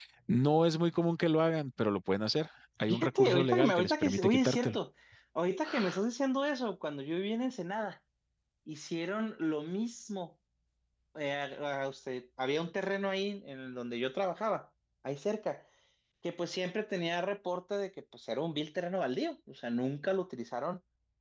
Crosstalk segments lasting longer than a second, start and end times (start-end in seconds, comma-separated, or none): 2.9-4.8